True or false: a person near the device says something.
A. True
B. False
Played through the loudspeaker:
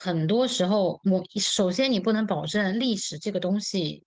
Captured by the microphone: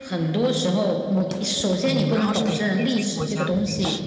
A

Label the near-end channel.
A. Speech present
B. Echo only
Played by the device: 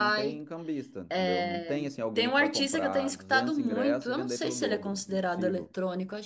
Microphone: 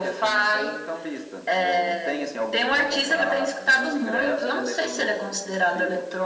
B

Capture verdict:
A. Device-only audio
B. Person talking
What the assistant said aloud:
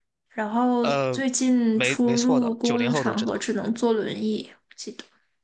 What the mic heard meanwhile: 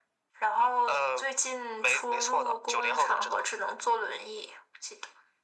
A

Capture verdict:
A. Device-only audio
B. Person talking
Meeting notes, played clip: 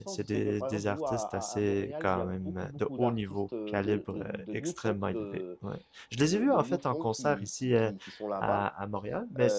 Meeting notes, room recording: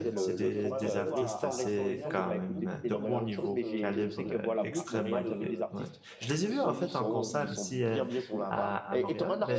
B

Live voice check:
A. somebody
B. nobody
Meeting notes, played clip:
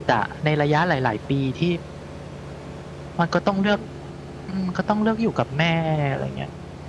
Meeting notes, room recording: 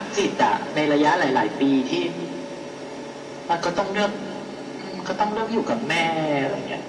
B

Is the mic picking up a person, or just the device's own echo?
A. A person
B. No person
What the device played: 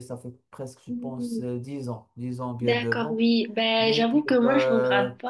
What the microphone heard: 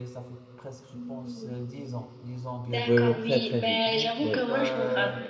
A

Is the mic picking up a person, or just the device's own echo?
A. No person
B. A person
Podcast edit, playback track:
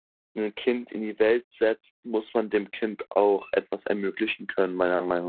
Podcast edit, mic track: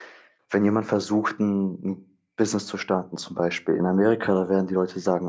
B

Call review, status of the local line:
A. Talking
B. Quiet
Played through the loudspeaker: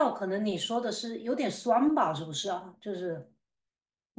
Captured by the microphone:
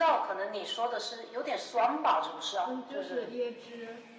A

